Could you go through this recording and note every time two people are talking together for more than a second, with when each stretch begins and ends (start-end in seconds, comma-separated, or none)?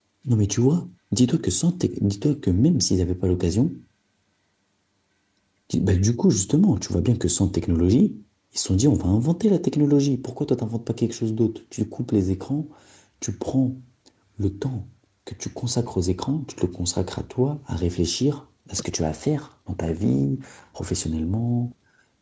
none